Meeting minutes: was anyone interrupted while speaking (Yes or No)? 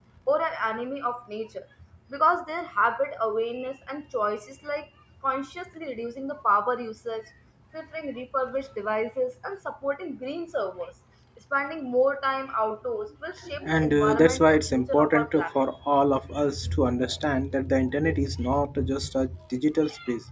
Yes